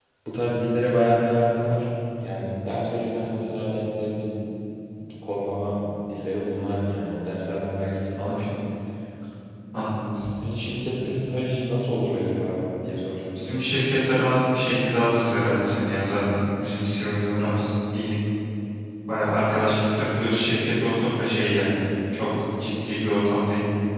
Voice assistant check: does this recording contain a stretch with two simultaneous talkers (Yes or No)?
No